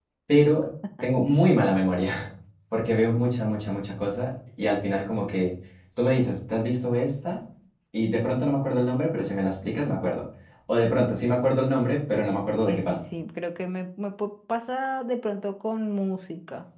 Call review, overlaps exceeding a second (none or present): none